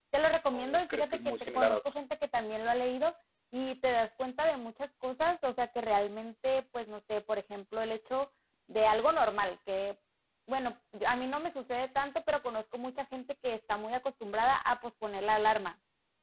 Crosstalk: present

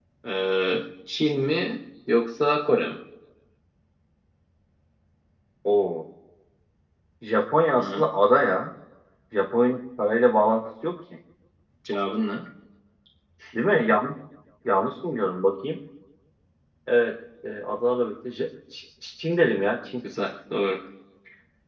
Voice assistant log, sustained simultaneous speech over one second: none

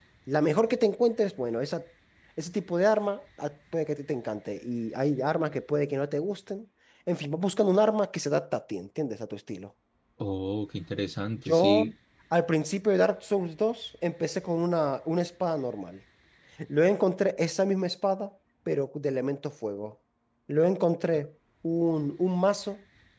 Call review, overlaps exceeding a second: none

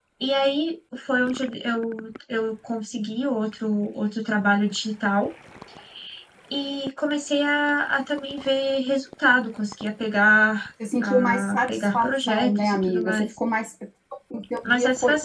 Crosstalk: present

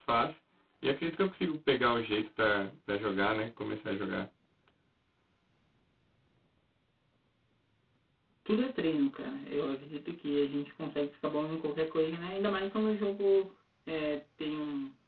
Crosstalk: none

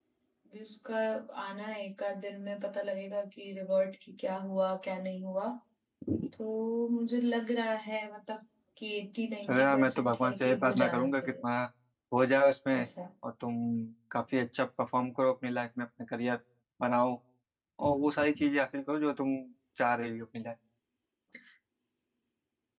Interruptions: present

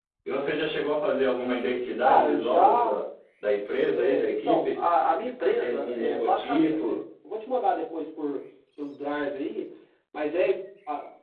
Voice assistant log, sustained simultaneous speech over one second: present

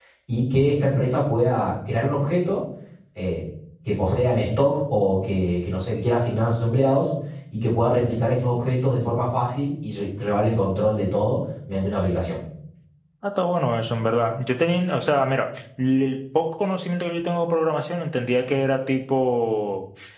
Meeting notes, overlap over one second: none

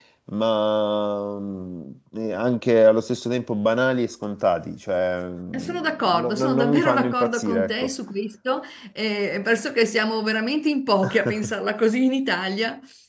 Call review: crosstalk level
present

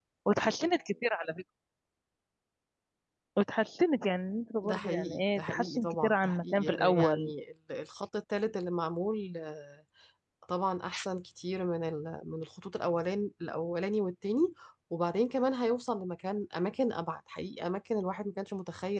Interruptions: present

